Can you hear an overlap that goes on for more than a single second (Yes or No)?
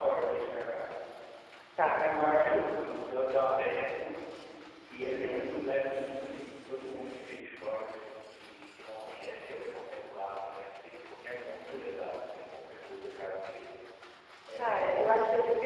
No